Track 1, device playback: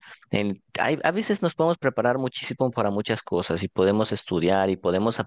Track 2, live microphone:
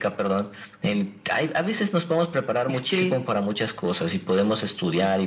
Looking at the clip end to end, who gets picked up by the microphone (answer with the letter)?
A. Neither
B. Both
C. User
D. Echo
B